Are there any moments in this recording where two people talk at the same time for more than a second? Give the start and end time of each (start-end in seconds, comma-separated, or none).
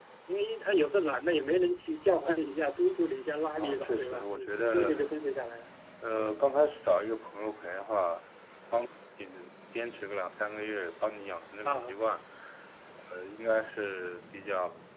3.6-4.9